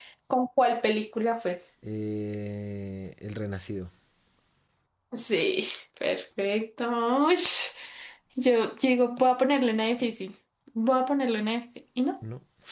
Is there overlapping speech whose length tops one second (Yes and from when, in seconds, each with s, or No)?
No